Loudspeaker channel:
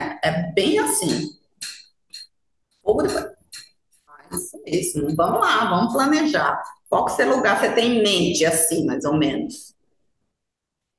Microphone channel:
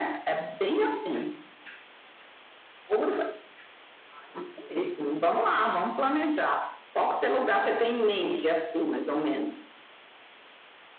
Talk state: echo only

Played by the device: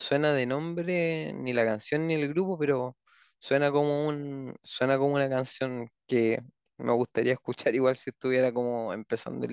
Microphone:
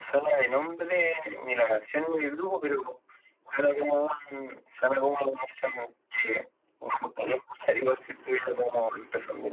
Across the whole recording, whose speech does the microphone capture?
echo only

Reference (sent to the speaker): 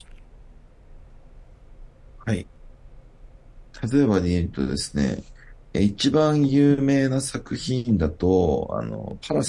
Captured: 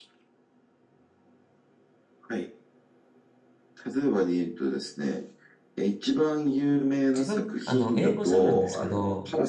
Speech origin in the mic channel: both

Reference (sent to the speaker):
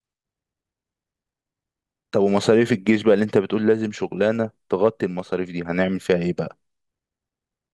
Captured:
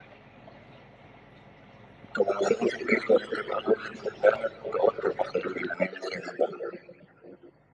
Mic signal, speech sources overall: echo only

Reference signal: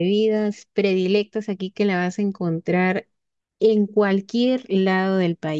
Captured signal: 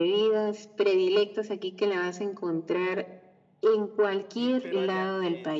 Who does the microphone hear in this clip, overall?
both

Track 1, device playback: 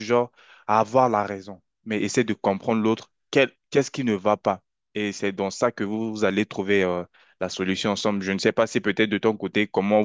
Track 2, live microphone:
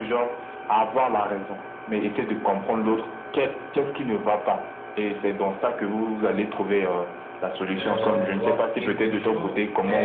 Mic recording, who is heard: both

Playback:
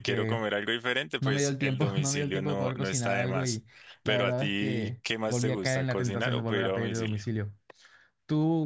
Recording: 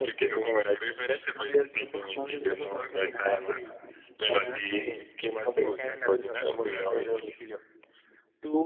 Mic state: echo only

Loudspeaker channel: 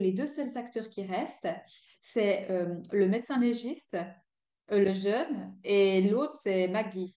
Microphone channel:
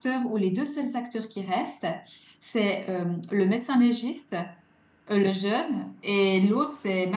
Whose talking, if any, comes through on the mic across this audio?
echo only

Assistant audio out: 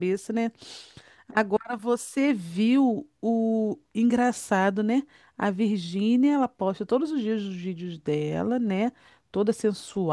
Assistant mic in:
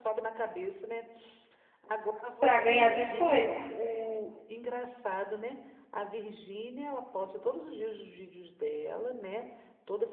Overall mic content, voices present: both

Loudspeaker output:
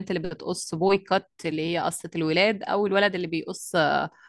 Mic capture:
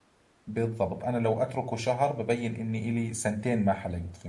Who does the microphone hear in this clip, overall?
user only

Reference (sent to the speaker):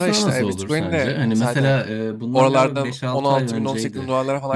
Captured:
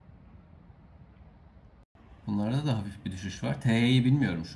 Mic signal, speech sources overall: user only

